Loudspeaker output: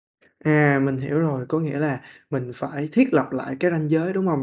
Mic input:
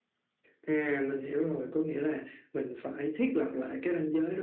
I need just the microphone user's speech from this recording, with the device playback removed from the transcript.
none

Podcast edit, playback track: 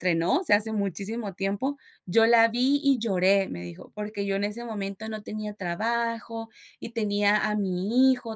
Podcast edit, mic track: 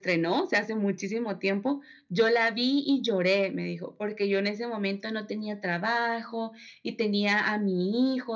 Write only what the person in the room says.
none

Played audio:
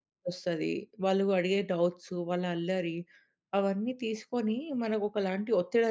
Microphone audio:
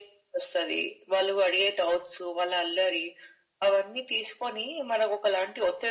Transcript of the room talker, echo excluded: none

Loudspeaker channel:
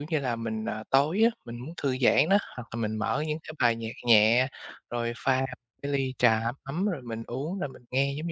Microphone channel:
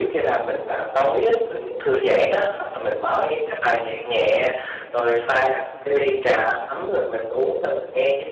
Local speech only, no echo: none

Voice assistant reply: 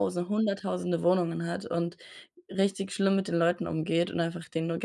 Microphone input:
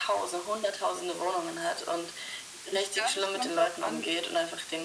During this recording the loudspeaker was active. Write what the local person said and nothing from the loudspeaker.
Ich glaube, es kommt drauf an

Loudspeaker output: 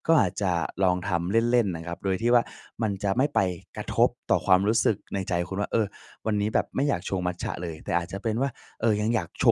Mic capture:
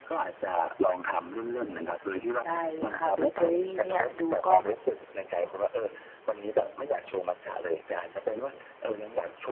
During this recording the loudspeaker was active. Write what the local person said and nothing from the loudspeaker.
ได้เลยคะ เบเกอรีเนี่ยดูก็

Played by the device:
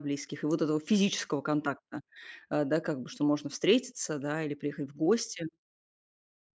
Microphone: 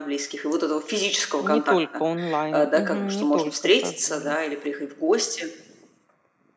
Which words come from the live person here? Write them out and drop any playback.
Не только онлайн, мгм, не только созвонов.

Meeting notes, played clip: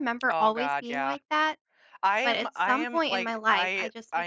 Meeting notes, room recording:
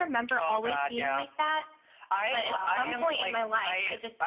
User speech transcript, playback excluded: Um

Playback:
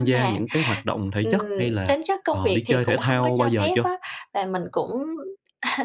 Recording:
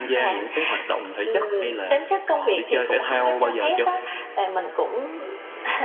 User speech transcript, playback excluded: none

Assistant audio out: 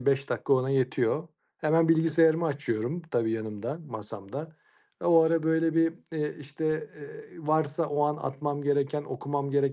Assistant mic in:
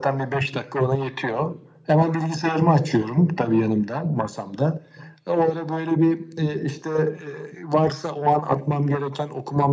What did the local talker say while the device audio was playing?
none

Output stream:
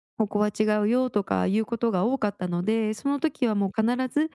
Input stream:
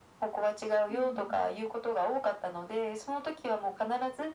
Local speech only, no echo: うーん。

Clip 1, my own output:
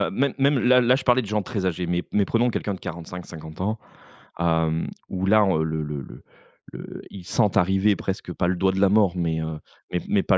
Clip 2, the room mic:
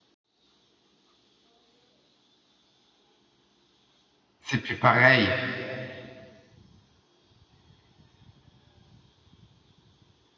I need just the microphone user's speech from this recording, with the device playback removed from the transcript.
C'est plus pareil.

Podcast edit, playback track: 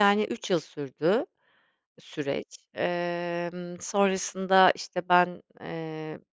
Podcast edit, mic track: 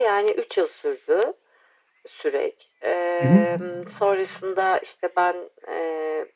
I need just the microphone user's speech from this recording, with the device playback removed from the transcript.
Hı hı.

